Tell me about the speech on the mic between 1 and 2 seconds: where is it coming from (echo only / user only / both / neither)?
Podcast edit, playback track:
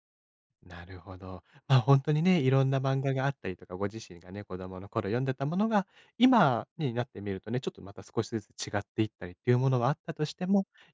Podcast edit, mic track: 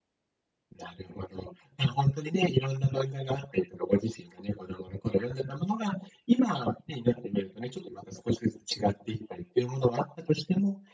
echo only